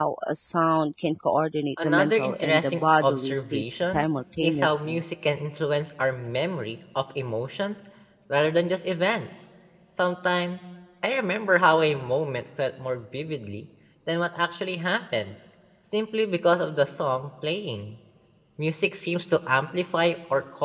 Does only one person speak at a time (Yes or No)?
No